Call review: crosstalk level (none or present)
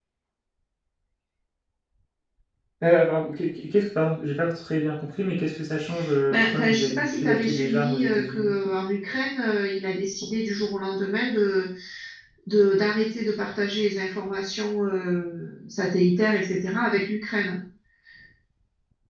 present